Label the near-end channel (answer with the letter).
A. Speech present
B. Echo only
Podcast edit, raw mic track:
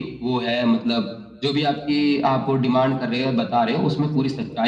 B